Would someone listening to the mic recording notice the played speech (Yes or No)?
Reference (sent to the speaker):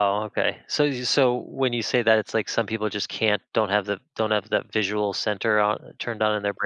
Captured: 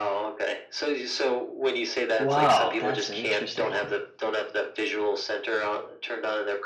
Yes